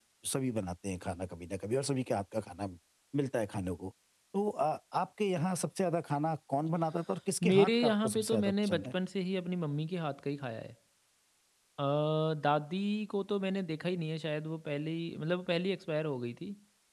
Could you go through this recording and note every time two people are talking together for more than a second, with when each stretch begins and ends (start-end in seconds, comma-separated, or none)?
7.4-8.9